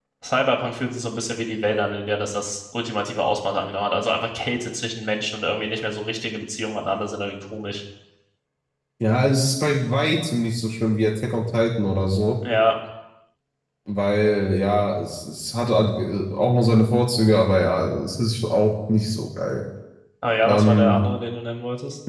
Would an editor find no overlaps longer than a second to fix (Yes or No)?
Yes